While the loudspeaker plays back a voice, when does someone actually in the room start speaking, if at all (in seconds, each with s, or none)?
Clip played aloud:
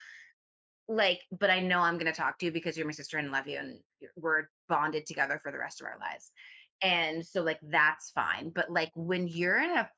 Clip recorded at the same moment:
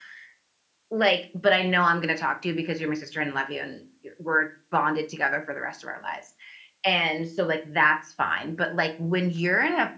none